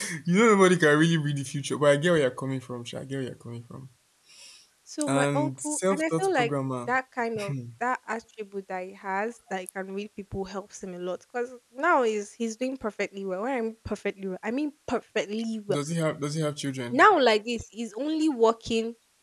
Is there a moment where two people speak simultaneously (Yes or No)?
Yes